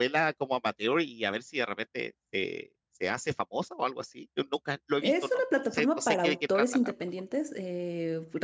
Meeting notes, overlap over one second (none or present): present